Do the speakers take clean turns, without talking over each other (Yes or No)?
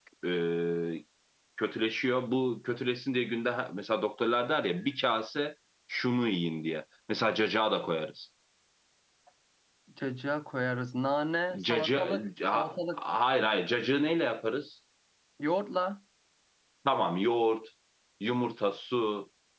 No